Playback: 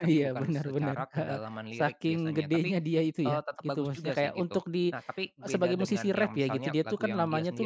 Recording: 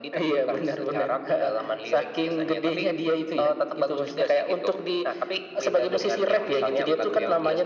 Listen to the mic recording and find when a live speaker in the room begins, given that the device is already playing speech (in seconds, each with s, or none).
none